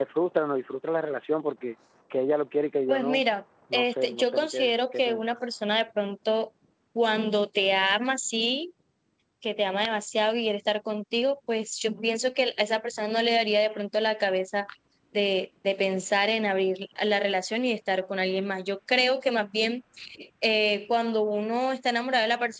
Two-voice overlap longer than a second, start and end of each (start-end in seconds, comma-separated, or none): 3.7-5.4